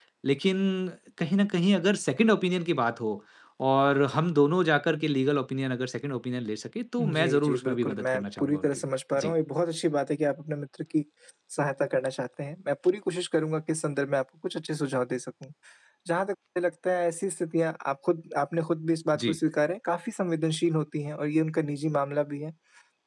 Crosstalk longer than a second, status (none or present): present